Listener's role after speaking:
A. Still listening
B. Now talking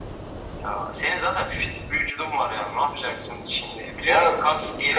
B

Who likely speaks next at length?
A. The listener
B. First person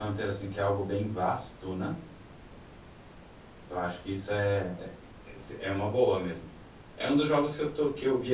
B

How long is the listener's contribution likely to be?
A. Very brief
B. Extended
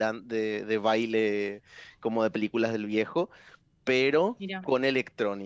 A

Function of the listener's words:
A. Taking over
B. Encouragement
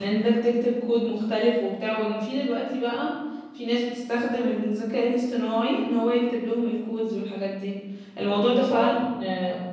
B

